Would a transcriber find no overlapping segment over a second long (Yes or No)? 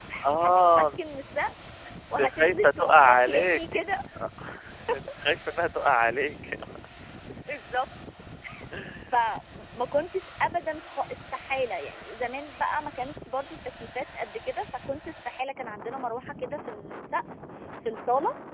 No